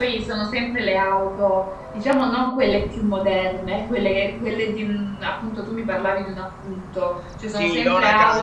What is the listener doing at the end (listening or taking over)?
taking over